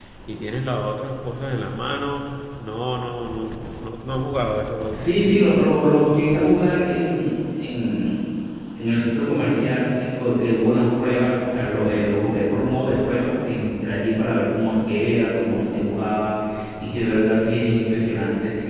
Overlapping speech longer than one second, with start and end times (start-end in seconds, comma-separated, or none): none